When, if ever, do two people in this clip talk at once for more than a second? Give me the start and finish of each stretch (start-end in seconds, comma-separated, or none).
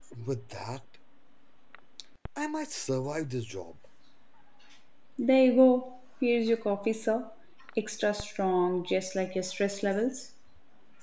none